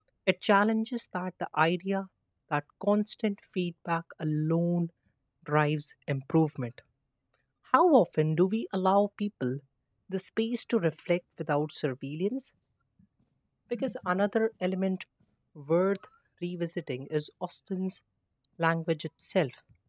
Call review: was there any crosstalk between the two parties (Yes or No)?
No